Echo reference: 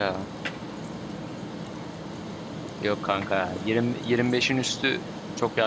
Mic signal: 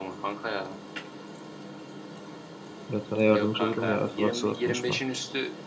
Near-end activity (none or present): present